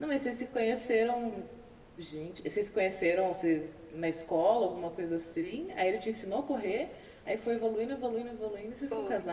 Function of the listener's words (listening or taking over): taking over